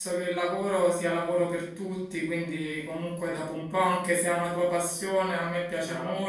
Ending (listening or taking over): listening